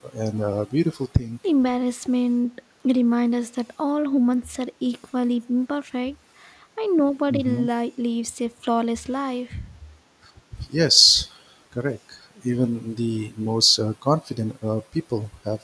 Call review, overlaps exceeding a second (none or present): none